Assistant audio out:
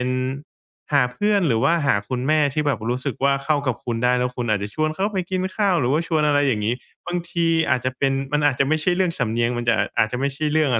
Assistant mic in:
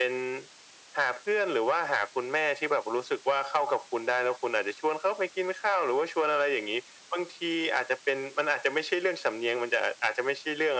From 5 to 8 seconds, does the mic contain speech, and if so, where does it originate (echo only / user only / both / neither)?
echo only